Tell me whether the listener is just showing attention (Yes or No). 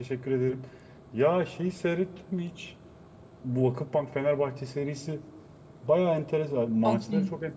Yes